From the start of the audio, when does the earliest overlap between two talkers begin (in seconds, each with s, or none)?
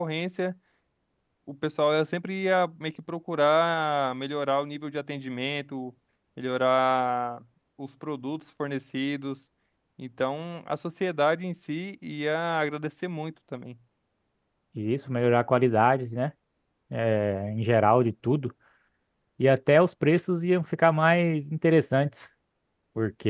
none